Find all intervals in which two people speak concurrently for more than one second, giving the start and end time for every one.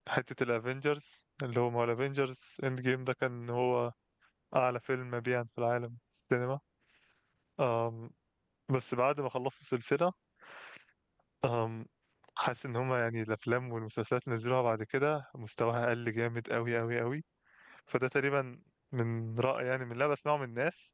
none

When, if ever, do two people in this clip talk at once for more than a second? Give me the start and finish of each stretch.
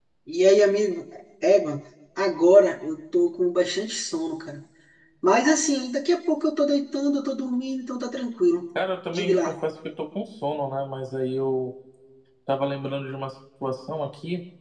none

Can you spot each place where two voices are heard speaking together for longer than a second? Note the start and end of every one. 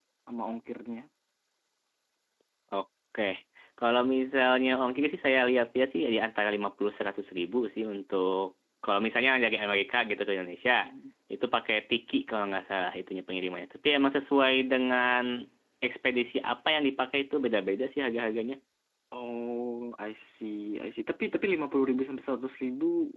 none

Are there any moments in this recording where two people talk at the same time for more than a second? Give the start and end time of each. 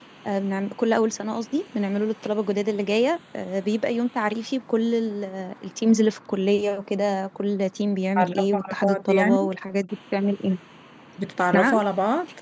8.2-9.5

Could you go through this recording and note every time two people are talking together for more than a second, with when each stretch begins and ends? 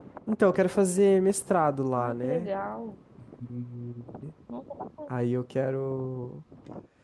none

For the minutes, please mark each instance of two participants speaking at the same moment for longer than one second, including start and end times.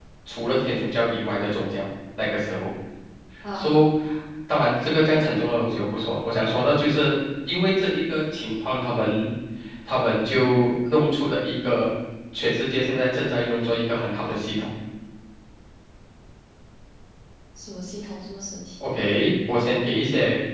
none

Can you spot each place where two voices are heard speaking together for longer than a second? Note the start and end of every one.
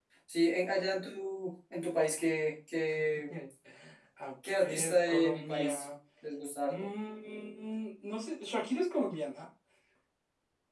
4.6-5.8

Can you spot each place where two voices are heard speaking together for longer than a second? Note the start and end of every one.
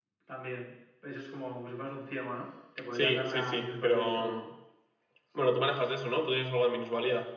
2.9-4.4

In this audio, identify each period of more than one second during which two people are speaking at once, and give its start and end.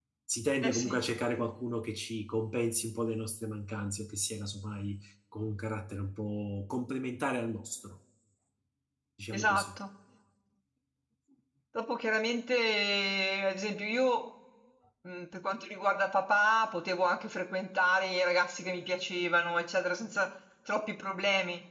none

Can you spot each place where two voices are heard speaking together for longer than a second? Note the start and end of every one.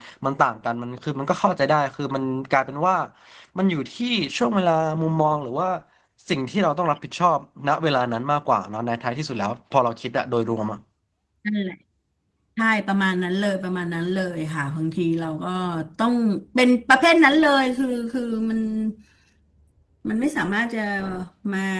none

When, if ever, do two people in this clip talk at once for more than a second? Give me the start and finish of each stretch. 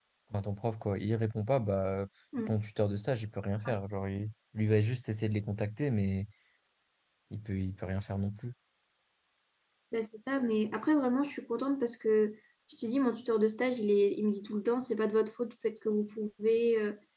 none

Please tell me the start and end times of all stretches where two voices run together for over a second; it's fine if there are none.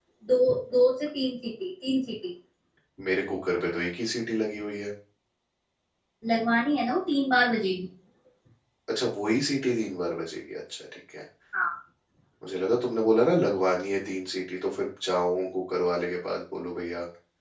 none

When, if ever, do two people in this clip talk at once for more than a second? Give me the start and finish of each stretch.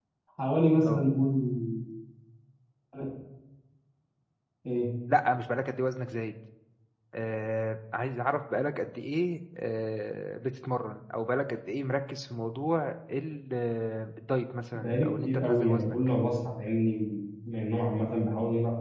14.8-16.0

